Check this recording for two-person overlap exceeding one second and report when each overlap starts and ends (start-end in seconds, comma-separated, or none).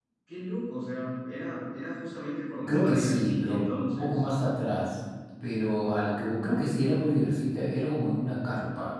2.7-4.2